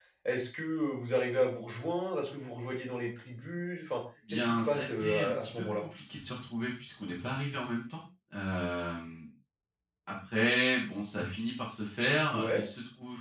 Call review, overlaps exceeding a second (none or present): present